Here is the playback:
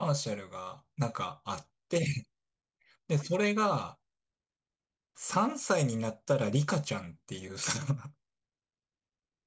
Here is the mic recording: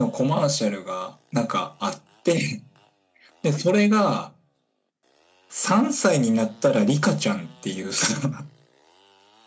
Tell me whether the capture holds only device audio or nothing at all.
Yes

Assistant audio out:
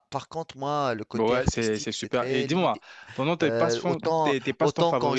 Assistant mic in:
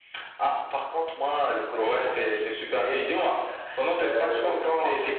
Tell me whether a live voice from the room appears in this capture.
No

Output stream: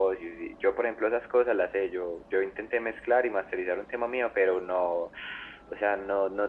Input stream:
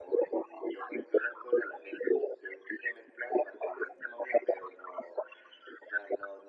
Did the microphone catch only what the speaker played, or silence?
Yes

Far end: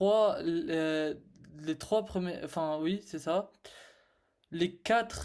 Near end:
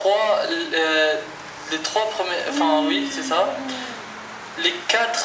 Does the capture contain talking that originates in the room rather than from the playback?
Yes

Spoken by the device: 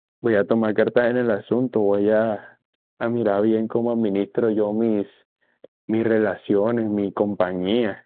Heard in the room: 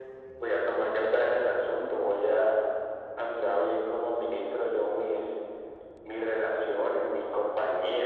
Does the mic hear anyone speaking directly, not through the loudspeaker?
No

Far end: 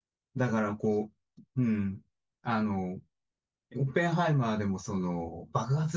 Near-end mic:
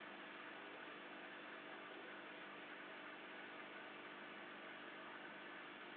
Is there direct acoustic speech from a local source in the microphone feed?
No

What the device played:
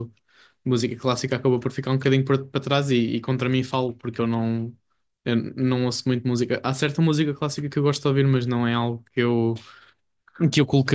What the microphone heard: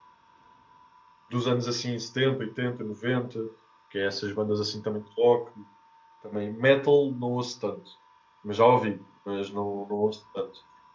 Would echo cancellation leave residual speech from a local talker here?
Yes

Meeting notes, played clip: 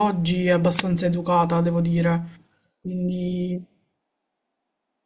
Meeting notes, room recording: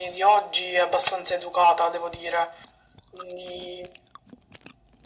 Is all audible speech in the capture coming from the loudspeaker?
Yes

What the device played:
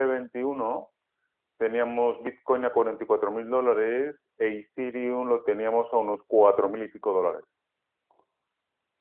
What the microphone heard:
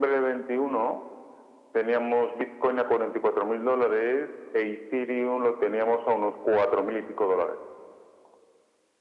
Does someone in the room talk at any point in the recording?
No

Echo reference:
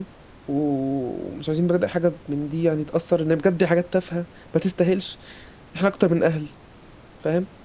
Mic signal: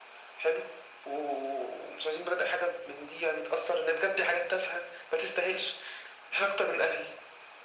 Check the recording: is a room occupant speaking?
No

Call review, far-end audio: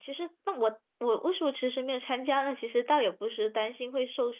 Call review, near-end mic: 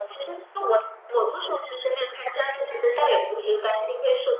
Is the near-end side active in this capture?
No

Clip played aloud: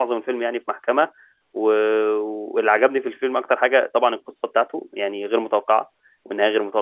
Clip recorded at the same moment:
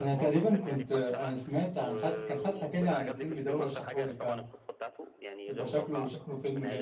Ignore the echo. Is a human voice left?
Yes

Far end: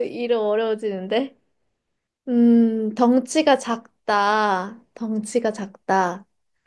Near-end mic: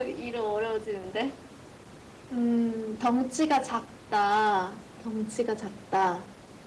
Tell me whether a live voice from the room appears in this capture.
No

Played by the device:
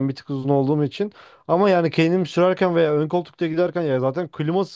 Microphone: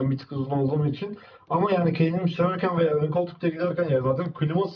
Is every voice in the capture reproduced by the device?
Yes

